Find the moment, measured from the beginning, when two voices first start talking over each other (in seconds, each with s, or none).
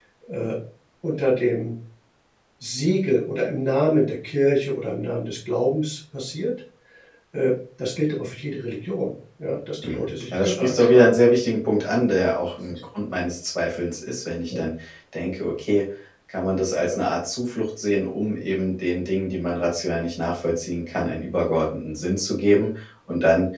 9.8 s